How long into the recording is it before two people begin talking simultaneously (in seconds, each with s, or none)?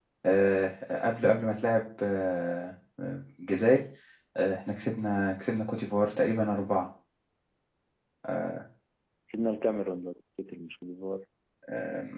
none